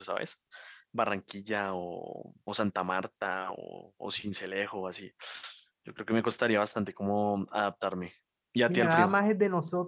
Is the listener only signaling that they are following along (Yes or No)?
No